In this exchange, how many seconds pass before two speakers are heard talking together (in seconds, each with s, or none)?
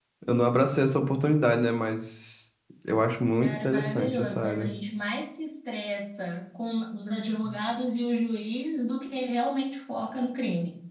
3.4 s